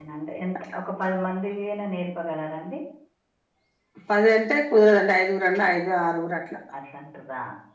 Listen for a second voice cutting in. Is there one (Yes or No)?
No